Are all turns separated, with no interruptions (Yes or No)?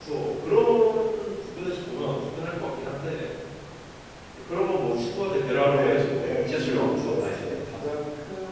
No